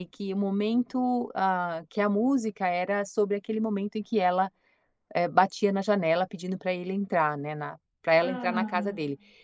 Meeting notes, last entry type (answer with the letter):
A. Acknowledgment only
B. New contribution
A